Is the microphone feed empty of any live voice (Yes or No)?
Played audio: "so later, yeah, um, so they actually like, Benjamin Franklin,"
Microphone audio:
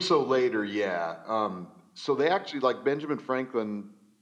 Yes